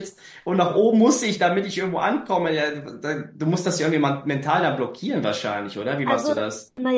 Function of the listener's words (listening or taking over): taking over